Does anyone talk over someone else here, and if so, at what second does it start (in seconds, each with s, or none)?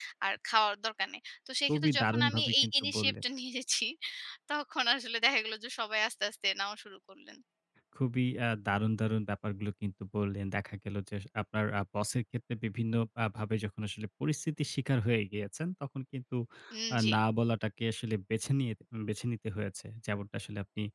1.7 s